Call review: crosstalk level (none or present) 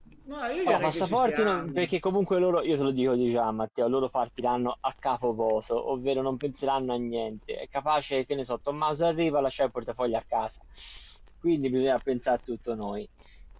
present